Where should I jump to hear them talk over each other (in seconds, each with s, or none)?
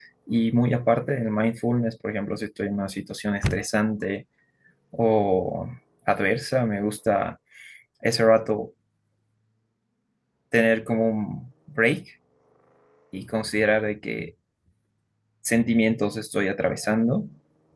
none